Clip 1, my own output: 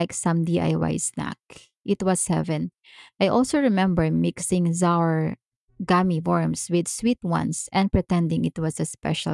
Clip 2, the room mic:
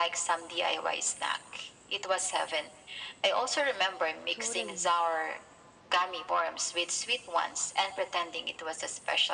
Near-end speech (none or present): present